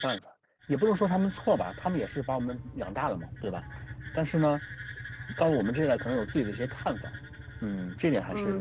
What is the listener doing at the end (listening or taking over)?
taking over